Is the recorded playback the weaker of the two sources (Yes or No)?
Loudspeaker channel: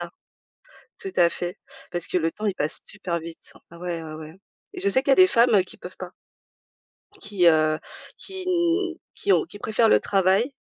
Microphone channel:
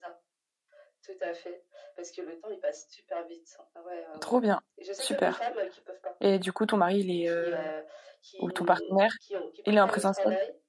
Yes